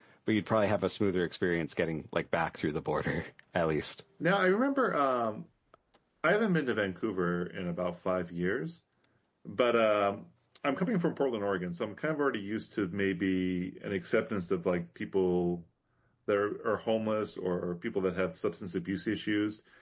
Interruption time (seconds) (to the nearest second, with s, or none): none